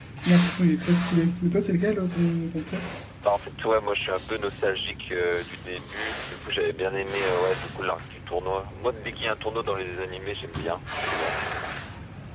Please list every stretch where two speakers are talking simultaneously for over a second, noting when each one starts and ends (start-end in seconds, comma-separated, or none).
none